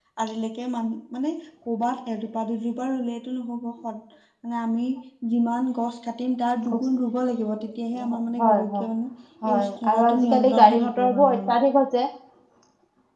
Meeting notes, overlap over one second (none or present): present